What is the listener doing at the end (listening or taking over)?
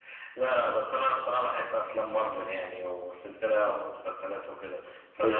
taking over